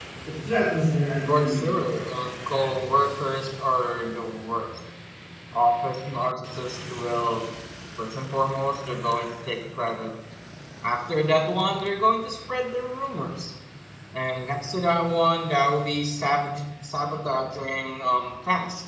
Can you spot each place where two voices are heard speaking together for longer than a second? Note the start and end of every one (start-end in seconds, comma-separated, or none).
none